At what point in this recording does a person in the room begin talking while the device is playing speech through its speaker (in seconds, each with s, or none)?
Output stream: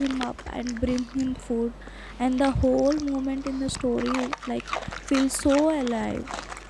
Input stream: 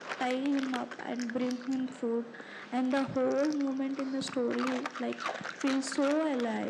none